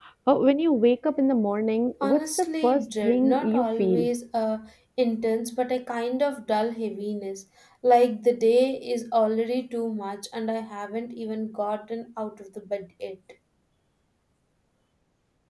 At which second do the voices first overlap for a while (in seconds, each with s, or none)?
2.0 s